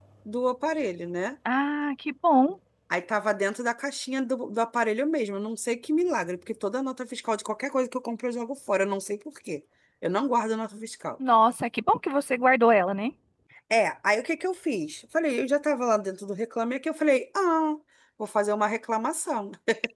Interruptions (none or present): none